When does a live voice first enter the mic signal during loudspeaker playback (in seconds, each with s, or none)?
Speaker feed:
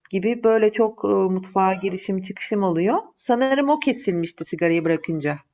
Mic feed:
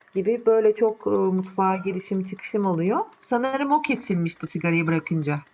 none